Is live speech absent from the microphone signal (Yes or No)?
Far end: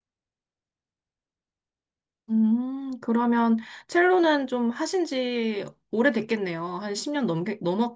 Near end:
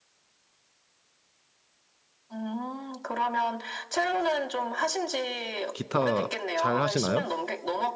No